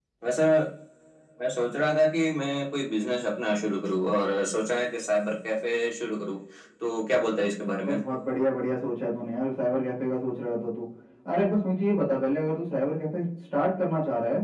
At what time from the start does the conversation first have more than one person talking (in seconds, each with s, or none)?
none